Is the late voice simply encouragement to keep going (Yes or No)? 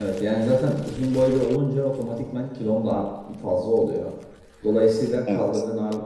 Yes